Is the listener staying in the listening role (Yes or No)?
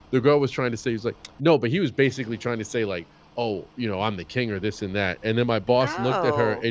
Yes